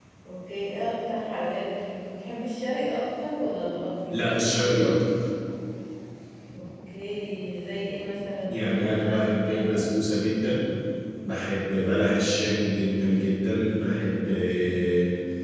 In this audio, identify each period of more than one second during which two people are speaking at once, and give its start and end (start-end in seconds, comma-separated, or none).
8.5-9.8